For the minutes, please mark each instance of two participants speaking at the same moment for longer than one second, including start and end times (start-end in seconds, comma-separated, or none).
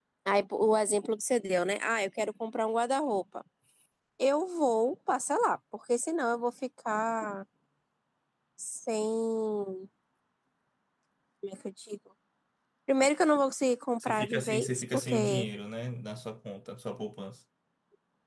14.0-15.4